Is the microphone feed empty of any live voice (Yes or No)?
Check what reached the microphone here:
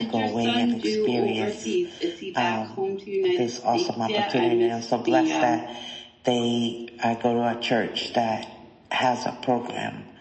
No